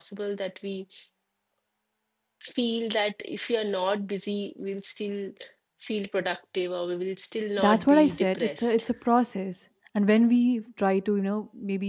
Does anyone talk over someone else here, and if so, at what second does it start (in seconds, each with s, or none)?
7.6 s